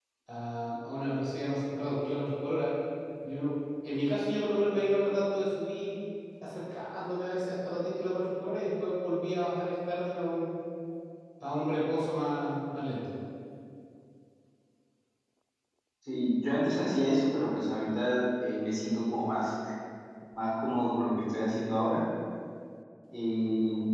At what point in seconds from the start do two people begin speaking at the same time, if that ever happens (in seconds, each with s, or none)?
none